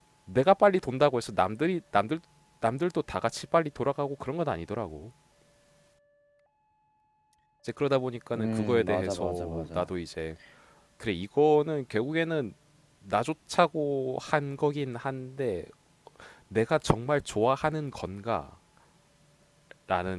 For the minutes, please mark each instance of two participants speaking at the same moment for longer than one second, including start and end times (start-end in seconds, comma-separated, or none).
8.3-9.9